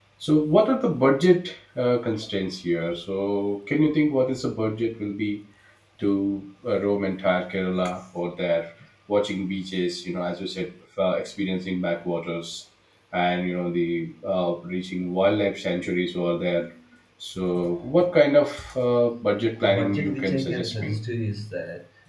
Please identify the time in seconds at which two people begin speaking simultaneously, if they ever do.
19.6 s

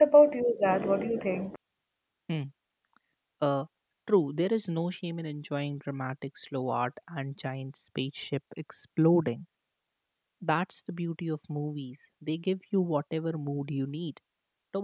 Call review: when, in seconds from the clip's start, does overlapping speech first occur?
none

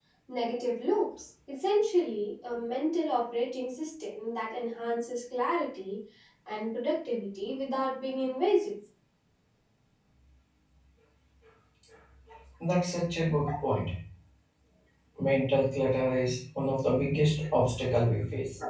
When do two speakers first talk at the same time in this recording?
none

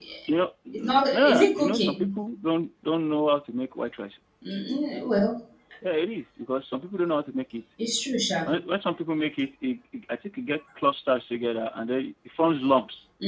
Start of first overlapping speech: 0.7 s

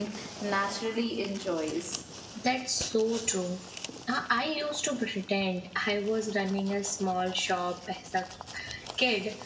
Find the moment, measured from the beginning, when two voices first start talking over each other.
none

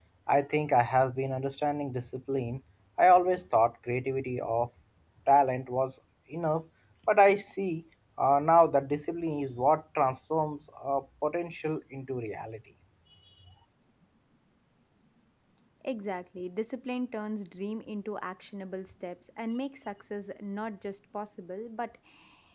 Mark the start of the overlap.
none

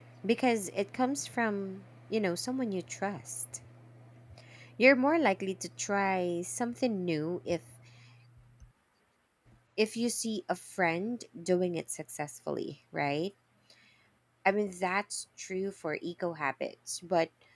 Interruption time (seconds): none

